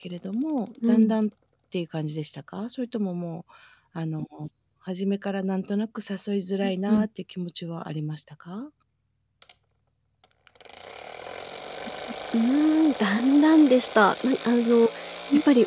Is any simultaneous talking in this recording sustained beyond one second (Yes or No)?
No